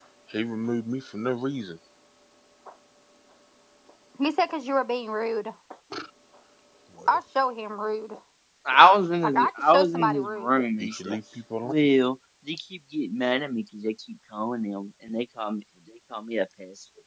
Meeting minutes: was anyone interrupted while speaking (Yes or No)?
Yes